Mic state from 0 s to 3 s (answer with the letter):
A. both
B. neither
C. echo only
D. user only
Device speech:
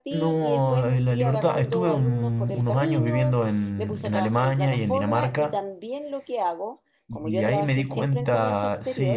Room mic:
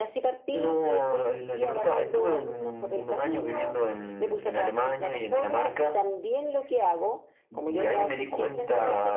C